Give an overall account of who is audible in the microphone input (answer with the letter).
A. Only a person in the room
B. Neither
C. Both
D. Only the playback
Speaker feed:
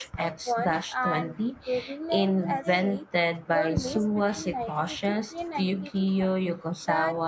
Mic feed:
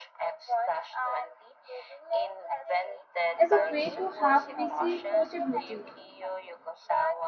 C